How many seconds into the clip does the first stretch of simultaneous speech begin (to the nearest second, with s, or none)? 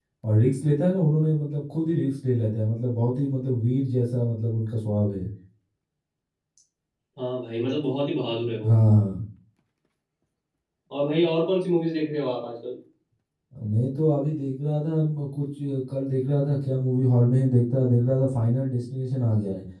none